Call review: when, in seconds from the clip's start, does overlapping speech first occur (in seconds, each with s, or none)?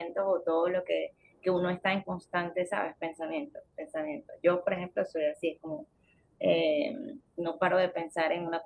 none